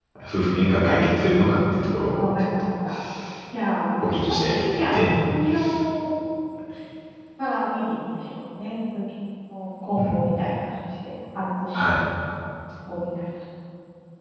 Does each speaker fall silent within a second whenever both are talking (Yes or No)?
No